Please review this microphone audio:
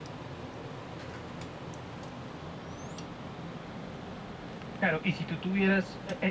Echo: none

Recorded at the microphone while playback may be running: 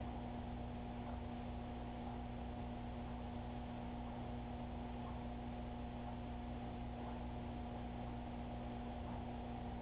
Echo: none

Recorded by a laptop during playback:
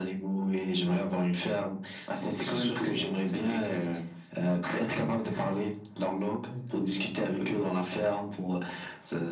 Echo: present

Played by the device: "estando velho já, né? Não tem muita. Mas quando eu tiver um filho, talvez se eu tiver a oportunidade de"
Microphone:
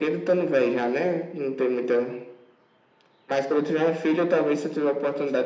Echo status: present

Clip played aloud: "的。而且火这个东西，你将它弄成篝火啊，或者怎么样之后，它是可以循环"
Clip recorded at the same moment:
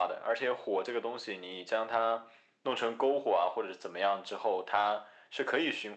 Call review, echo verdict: present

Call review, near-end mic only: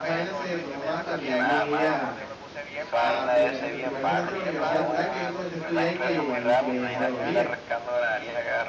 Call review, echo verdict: present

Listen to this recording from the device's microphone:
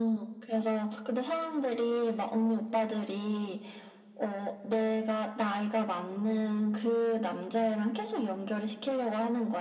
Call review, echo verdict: present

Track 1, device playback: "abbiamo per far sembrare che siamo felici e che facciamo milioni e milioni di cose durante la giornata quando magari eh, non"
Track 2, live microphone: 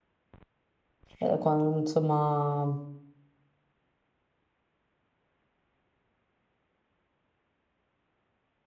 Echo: none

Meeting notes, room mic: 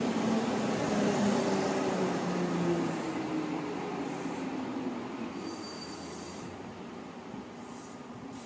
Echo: none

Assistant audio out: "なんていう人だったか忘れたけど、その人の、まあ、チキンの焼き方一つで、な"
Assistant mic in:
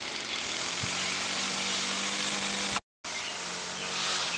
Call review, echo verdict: none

